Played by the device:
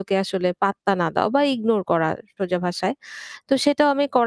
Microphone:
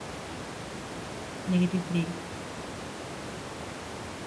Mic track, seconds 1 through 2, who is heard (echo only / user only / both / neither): user only